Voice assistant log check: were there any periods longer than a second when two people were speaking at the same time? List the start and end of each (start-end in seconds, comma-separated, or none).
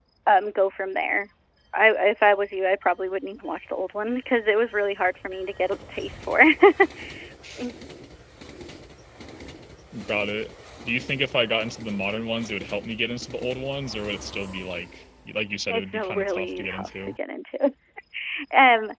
15.7-16.9